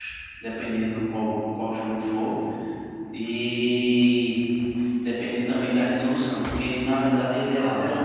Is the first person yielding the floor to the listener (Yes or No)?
No